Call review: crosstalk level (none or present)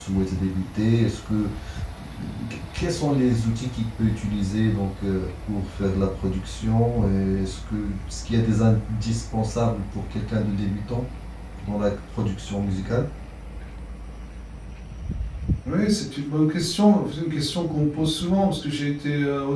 none